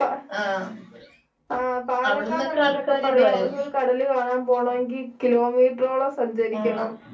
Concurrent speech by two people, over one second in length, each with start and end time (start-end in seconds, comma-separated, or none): 2.1-3.5